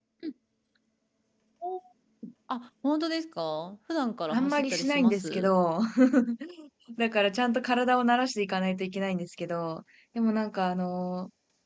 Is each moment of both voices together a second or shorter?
No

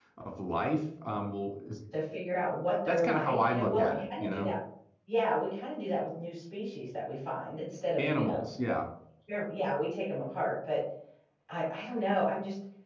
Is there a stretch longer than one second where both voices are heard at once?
Yes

